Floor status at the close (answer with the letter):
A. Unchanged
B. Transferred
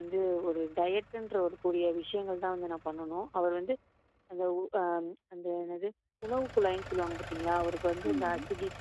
A